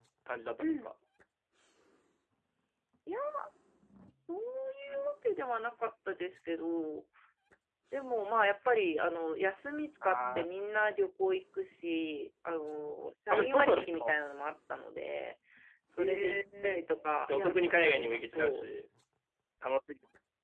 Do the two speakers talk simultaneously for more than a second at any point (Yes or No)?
Yes